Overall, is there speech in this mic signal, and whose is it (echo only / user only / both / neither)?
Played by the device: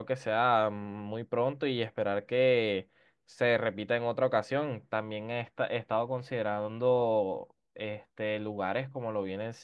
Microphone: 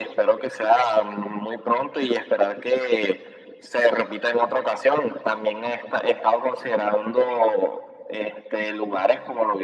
echo only